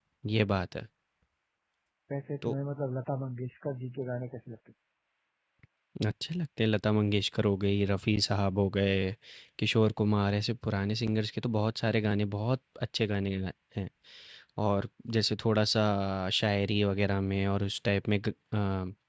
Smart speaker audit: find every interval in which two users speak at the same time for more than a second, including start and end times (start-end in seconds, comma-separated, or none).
none